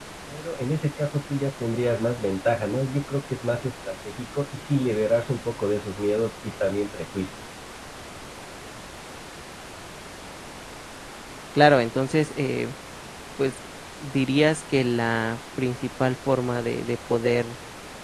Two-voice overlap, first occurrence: none

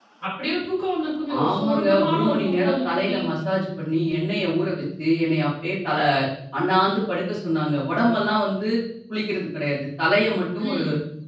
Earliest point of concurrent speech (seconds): 1.4 s

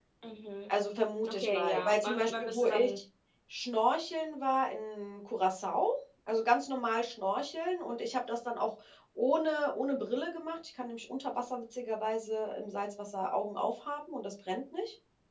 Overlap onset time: 1.3 s

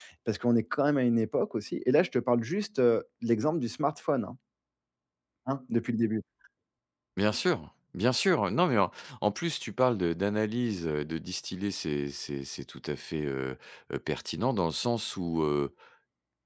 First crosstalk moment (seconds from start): none

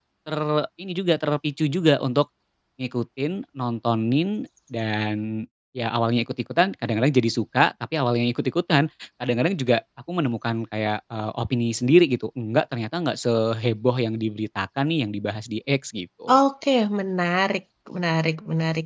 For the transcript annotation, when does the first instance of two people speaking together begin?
none

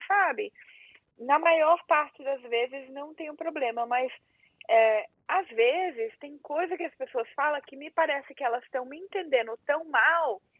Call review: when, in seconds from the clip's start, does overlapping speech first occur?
none

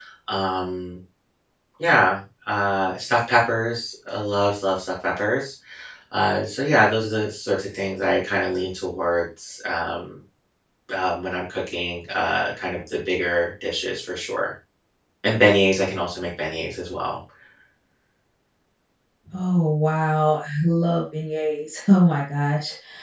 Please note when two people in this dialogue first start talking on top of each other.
none

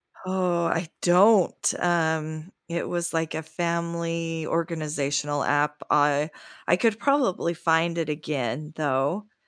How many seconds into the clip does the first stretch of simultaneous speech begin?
none

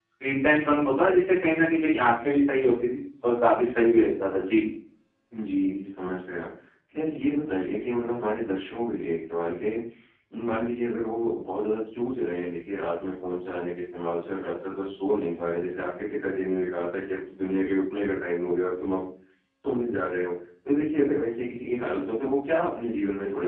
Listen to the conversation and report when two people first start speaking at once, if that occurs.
none

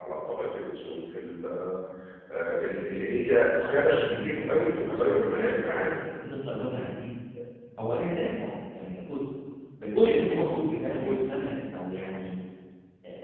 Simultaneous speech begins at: 3.6 s

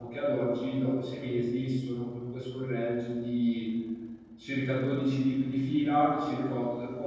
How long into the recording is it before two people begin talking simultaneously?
none

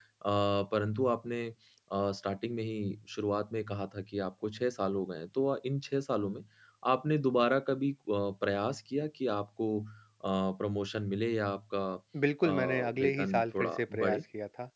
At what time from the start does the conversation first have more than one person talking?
12.4 s

